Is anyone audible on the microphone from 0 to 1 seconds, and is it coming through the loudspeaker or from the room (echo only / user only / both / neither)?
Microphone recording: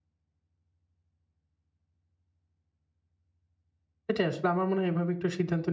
neither